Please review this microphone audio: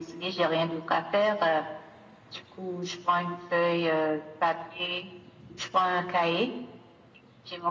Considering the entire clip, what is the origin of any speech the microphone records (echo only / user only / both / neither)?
echo only